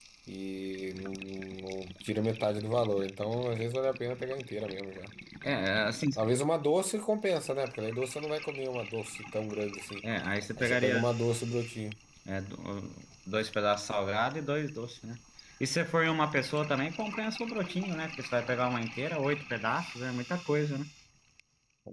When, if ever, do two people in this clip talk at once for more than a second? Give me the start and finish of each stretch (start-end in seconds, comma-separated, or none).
none